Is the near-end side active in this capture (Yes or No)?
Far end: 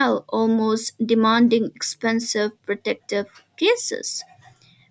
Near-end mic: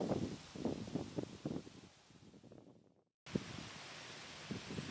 No